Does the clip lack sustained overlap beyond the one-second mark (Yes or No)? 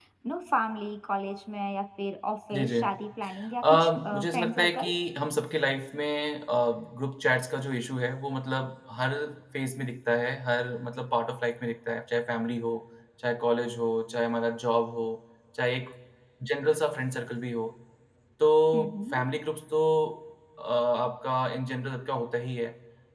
No